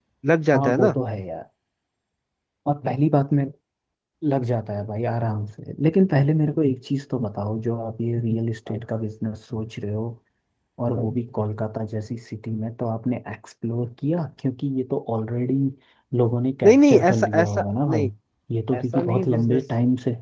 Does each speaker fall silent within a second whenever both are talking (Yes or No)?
No